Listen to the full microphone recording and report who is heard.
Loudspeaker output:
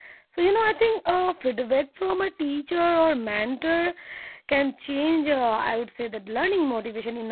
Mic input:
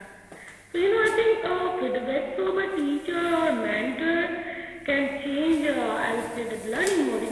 echo only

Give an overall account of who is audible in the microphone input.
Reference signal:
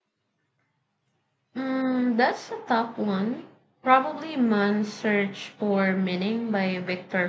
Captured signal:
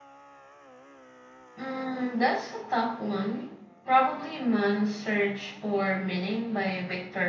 echo only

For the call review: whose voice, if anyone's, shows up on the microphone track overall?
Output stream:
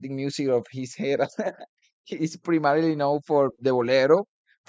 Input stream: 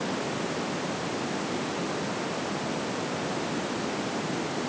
neither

